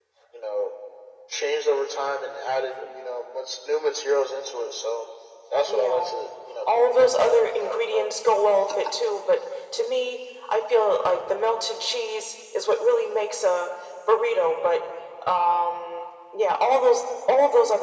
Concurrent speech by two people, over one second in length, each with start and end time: 6.8-8.1

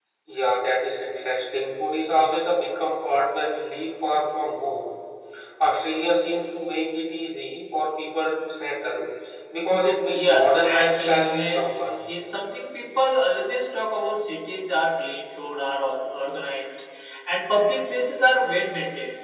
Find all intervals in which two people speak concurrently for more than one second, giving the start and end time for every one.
10.1-11.9

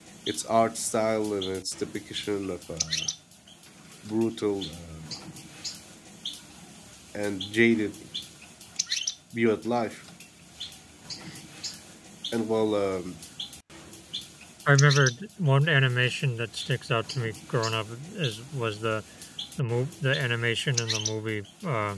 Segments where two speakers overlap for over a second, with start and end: none

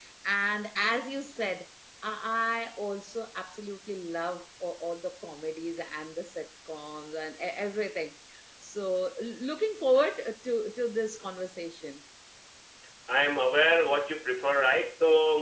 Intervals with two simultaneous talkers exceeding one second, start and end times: none

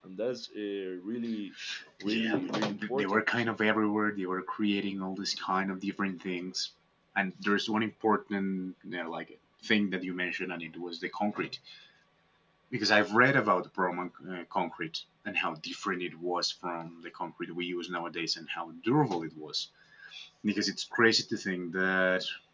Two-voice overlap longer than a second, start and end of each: 2.0-3.5

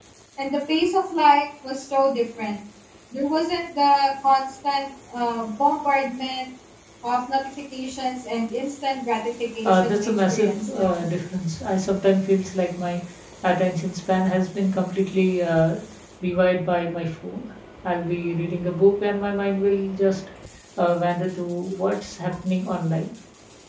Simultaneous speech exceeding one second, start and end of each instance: 9.6-11.0

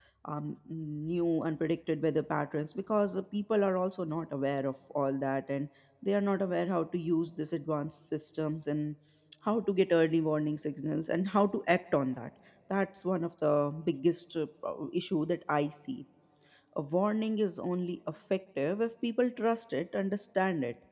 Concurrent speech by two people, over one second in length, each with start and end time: none

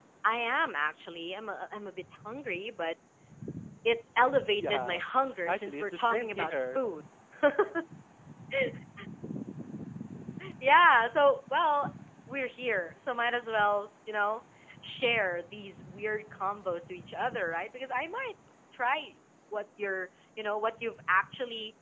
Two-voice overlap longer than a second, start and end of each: 5.5-6.8

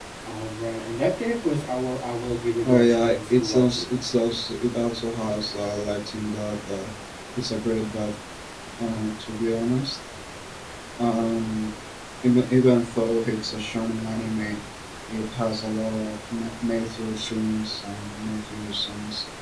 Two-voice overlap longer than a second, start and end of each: 2.6-3.9

